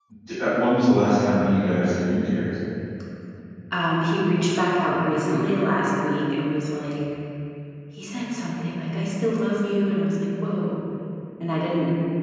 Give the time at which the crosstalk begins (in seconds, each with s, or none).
none